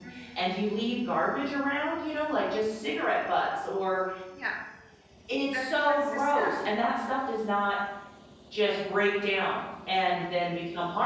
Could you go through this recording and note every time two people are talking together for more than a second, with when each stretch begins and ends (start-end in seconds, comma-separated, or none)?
5.5-6.8